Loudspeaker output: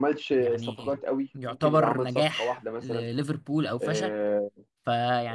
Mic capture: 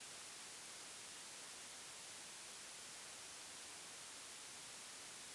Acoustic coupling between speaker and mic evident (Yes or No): No